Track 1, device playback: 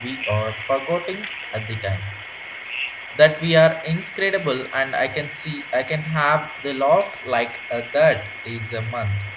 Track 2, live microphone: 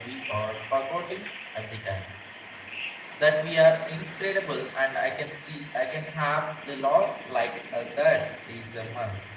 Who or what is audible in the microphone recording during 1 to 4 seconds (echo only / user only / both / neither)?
echo only